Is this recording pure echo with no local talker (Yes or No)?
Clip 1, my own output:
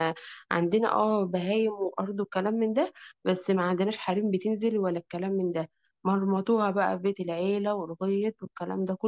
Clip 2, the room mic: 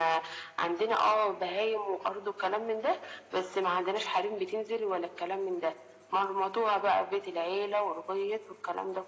Yes